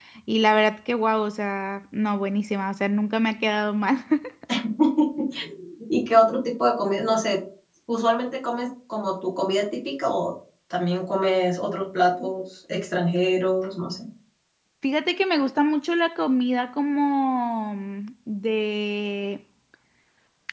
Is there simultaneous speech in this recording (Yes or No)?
No